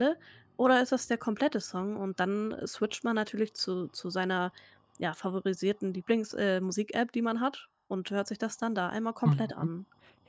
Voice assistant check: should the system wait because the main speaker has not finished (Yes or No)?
No